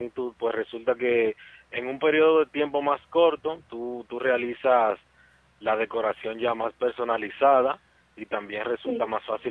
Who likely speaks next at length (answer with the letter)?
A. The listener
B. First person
B